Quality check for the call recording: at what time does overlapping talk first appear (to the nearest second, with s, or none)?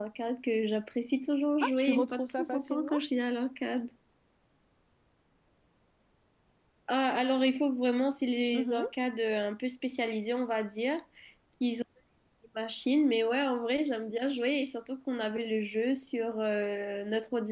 2 s